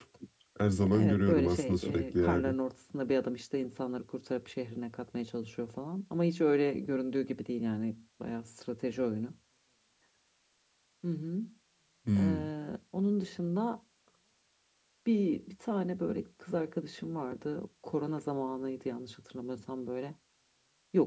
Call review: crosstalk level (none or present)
present